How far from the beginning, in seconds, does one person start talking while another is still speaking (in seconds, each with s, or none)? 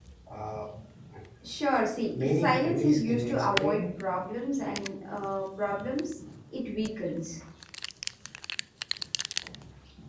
2.2 s